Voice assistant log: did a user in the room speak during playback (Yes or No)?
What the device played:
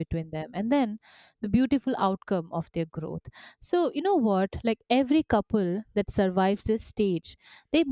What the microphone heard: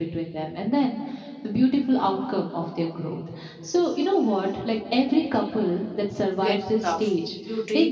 Yes